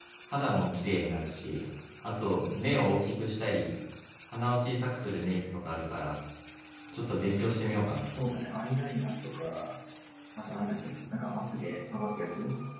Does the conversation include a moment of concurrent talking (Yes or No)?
No